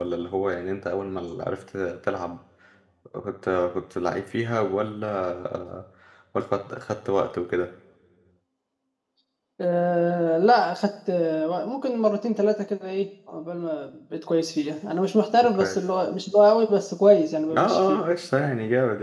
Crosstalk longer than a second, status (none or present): none